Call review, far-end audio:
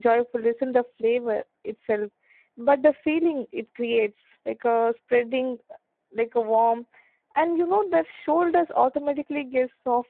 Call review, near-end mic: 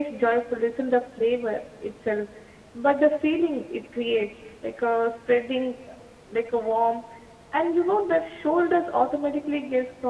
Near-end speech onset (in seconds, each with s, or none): none